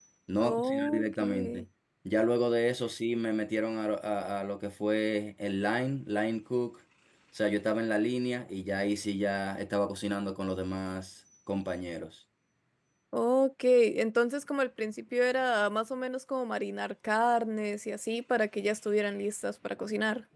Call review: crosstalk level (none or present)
present